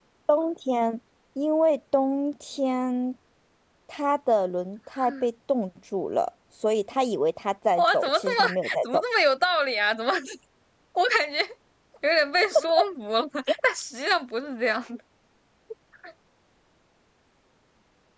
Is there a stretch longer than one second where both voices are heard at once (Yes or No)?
Yes